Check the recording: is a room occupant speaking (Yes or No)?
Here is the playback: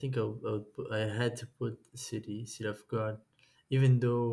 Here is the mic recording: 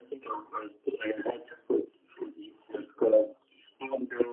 No